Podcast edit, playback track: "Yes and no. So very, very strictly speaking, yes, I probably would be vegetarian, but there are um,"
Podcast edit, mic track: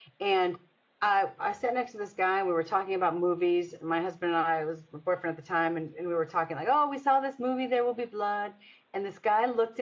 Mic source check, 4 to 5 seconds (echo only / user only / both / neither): user only